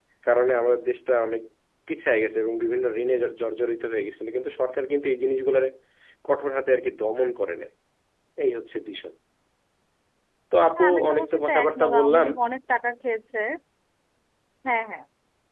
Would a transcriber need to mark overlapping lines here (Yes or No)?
Yes